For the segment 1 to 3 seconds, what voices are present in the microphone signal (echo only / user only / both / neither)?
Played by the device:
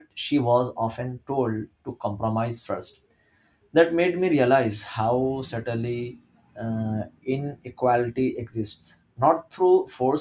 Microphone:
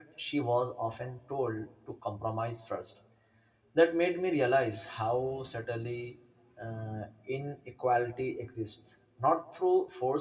echo only